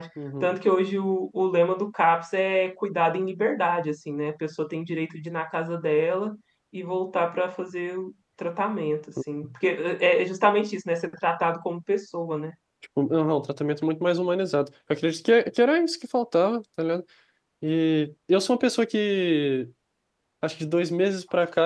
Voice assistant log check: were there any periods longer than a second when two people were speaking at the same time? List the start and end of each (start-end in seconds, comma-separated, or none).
none